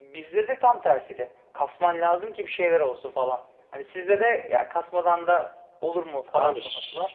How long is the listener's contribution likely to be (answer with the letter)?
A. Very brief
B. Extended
B